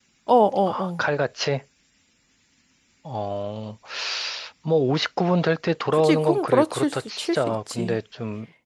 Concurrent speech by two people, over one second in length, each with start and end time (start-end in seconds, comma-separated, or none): 5.9-8.0